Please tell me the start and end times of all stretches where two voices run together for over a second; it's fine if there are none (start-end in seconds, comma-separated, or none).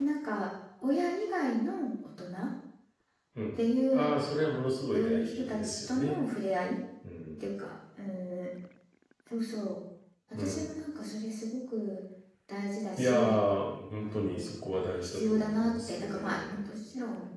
4.9-6.2, 14.0-16.6